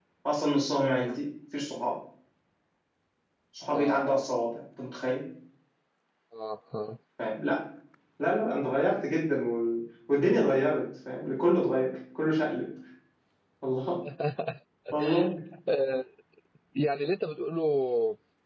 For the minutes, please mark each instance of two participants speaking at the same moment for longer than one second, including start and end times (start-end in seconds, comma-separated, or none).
none